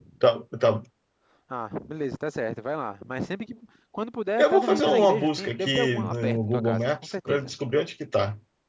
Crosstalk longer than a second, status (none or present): present